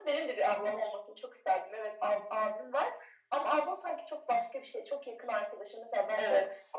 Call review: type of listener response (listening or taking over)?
listening